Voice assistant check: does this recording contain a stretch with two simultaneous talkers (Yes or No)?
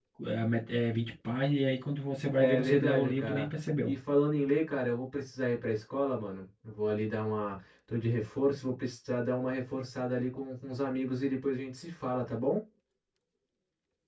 Yes